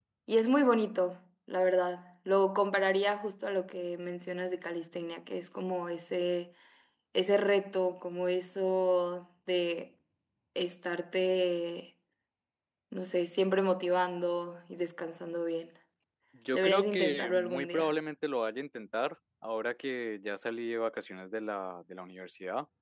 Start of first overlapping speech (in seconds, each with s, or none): 16.5 s